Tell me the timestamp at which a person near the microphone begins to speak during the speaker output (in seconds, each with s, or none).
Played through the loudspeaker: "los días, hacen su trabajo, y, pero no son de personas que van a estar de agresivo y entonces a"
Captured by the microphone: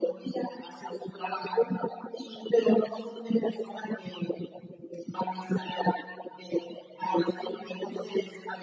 none